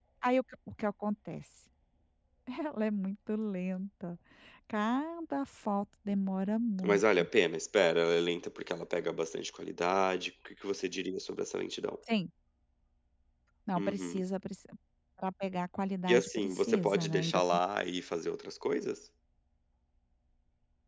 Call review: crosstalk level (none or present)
present